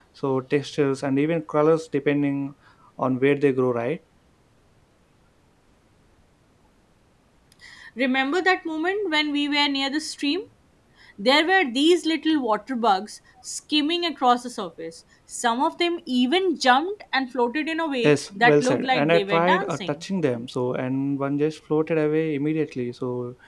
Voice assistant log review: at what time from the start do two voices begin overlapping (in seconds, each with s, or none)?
18.0 s